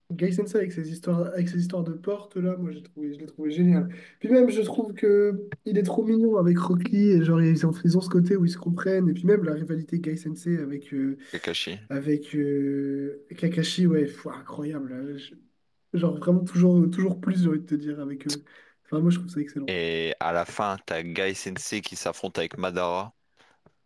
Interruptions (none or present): none